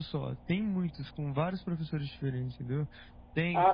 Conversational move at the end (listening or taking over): listening